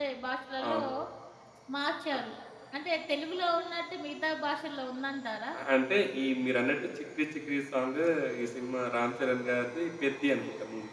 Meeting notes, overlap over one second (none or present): none